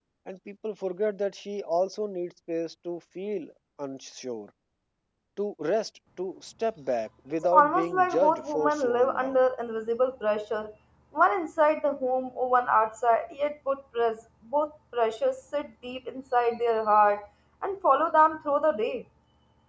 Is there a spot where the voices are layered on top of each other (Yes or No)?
Yes